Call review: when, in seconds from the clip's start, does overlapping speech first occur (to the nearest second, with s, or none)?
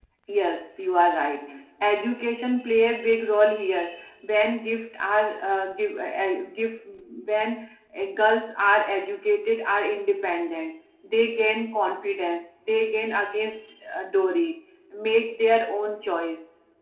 none